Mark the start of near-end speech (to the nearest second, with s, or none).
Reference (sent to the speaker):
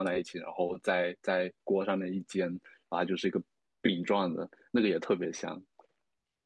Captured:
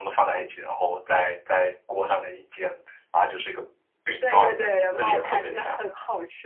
4 s